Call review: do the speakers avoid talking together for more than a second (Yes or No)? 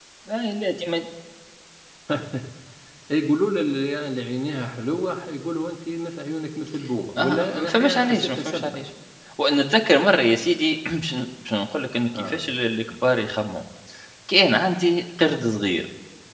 No